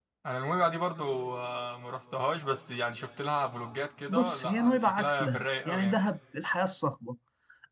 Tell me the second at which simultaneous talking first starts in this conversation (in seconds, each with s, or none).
4.1 s